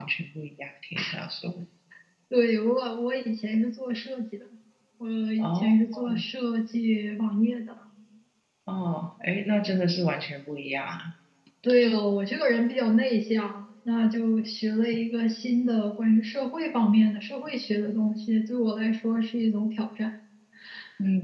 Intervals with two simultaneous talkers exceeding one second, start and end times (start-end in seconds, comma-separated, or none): none